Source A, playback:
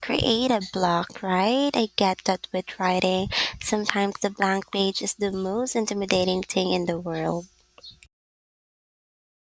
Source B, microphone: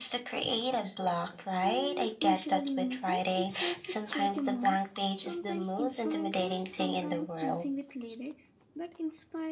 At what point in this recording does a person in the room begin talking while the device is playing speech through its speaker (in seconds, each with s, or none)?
1.6 s